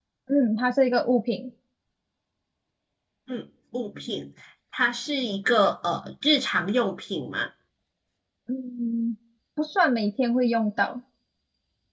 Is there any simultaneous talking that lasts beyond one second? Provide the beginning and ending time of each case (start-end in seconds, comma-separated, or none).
none